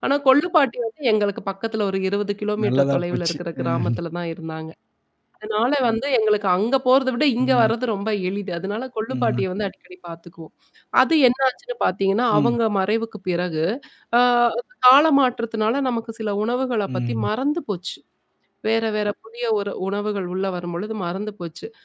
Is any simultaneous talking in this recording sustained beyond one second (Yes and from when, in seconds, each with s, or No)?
Yes, from 2.6 s